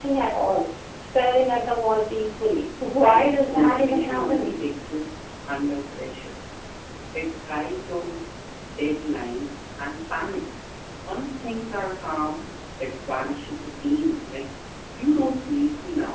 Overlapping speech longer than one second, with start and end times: 3.0-4.5

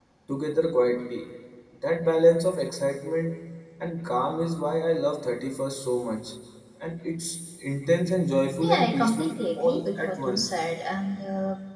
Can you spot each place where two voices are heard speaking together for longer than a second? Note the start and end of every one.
8.6-10.6

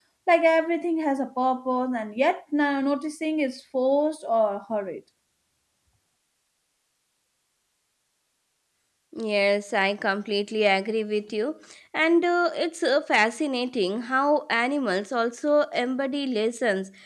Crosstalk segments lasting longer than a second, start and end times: none

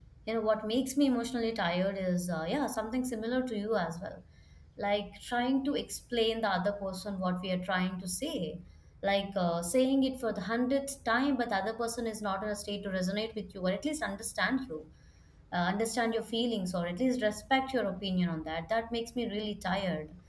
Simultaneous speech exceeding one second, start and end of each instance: none

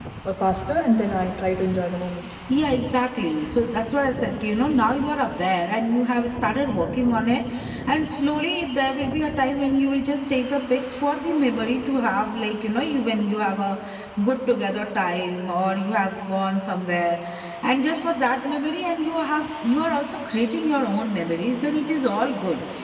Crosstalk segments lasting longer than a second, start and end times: none

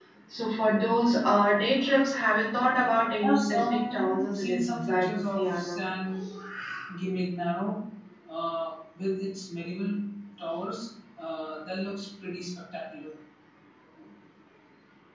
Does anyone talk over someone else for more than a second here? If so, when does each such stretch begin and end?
3.2-5.8

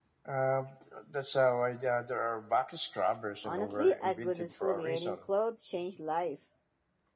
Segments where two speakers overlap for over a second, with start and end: 3.4-5.2

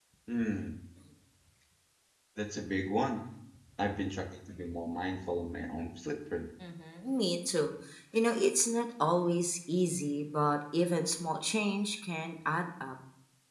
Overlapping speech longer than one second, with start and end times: none

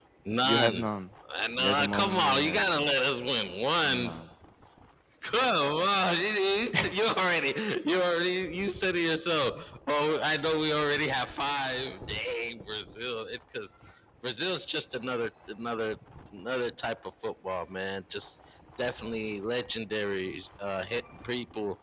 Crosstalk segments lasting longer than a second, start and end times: 1.6-2.9

